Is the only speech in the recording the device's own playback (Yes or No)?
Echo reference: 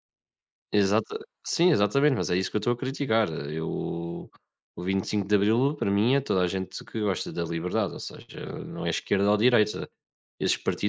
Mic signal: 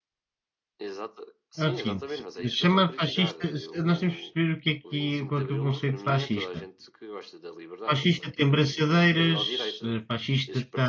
No